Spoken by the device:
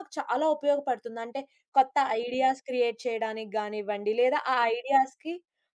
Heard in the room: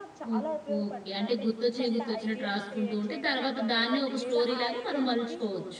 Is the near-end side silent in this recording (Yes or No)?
No